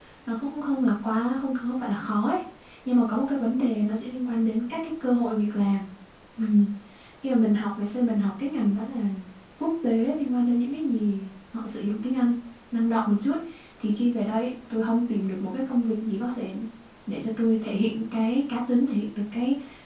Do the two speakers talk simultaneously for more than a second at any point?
No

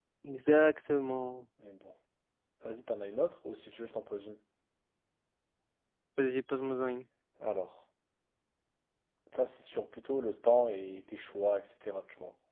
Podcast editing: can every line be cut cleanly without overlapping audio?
Yes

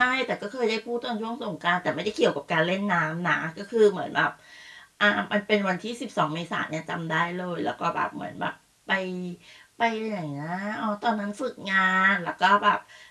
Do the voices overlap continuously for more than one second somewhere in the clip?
No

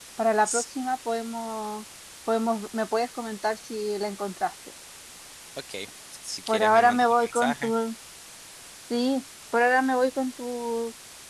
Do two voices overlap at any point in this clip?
Yes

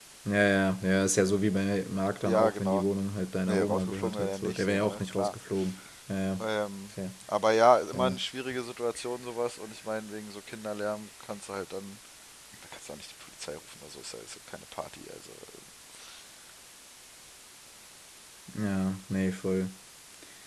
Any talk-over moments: Yes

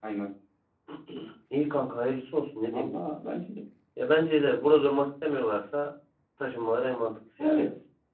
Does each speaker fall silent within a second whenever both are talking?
Yes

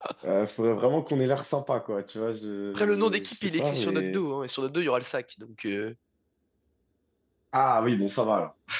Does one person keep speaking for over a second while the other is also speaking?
Yes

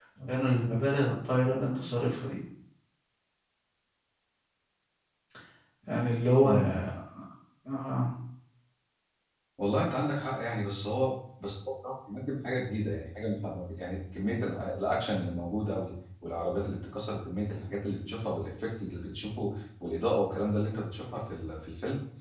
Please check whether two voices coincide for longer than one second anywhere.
No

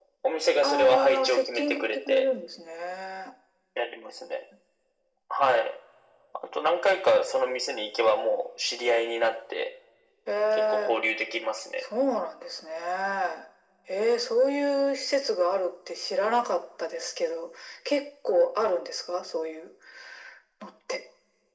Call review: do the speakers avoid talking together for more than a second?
No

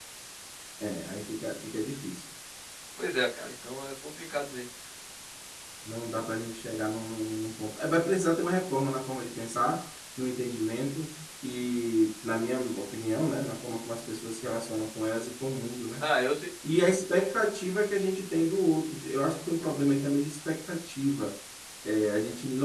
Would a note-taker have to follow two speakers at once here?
No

